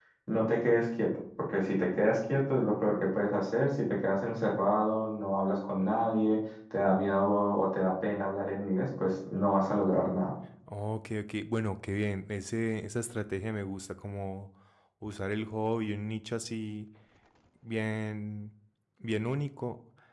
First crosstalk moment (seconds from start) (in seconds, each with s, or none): none